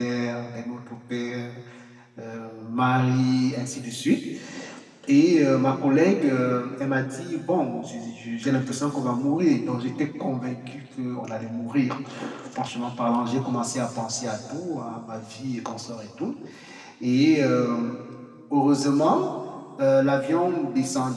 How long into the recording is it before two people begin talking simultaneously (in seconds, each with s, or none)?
none